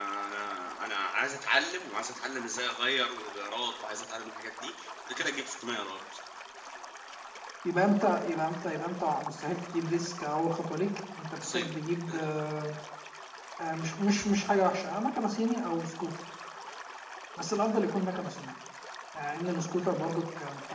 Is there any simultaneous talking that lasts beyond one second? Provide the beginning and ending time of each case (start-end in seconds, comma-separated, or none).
none